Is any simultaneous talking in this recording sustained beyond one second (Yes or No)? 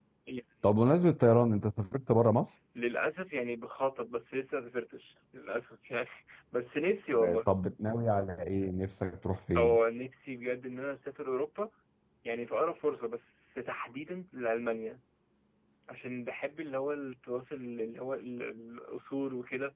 No